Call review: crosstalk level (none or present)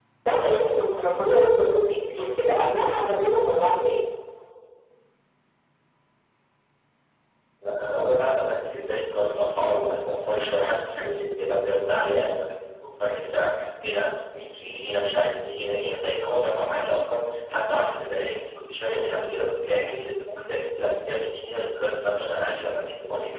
none